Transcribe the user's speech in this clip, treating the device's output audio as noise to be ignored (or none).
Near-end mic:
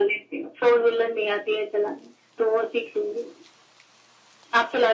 none